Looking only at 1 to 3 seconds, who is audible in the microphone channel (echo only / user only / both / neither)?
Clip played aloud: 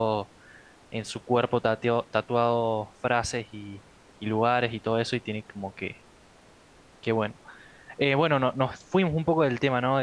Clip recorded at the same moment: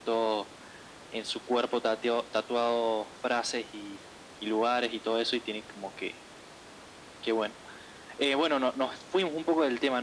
echo only